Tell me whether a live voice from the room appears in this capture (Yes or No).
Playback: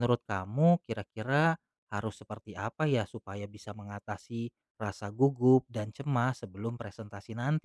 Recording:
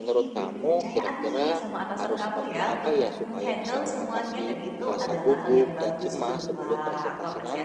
Yes